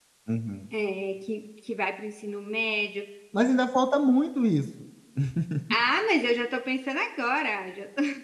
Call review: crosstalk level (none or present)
none